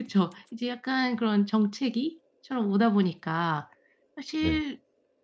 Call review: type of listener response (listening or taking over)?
listening